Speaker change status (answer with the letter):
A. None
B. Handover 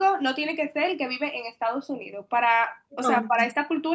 A